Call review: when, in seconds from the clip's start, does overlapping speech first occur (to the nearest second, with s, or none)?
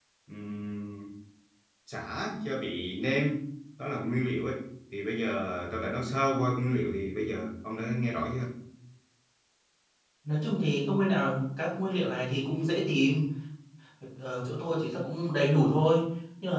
none